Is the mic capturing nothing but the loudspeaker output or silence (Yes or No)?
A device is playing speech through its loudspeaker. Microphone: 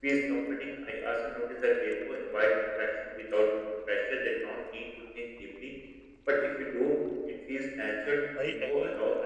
No